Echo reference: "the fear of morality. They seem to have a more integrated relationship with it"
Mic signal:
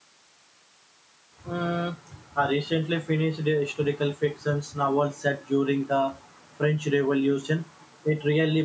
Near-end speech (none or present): present